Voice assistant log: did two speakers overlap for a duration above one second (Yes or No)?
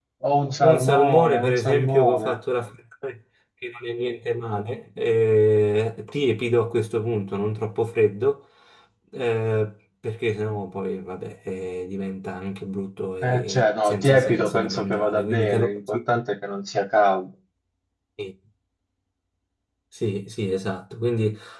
Yes